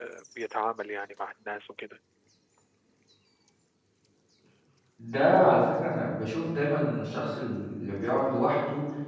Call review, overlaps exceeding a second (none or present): none